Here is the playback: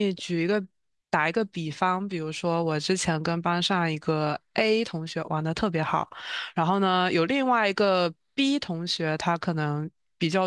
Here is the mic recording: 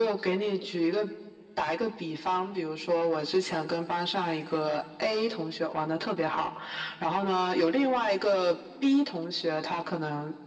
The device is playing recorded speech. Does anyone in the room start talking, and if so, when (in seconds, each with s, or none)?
none